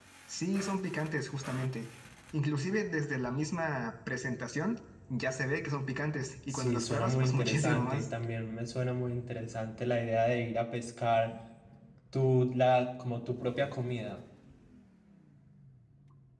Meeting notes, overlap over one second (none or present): present